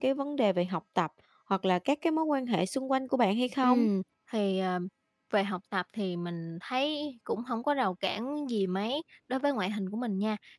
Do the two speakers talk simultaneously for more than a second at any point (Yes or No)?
No